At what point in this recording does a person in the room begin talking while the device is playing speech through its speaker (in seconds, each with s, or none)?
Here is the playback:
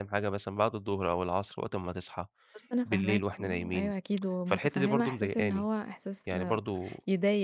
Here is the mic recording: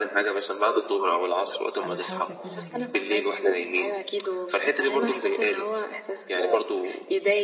1.8 s